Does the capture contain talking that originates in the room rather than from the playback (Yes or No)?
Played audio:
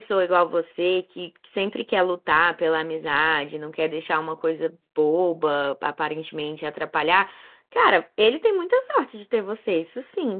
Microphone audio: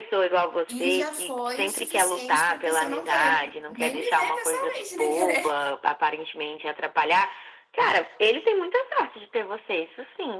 Yes